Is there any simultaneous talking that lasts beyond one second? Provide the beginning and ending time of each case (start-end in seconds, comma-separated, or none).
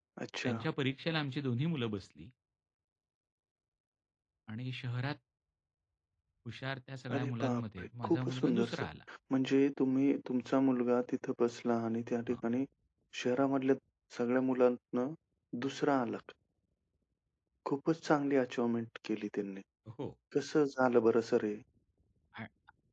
7.2-8.8